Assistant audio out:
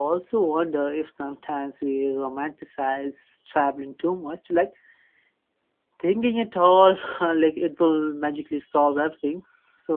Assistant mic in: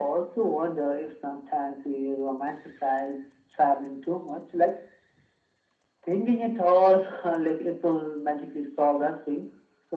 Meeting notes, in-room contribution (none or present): none